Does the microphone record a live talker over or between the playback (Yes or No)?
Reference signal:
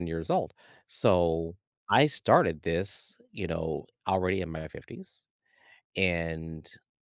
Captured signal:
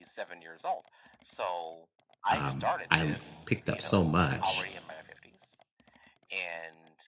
Yes